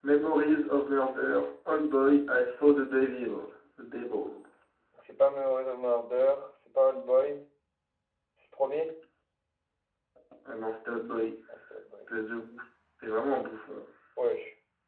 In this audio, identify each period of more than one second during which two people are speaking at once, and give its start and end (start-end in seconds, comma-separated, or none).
none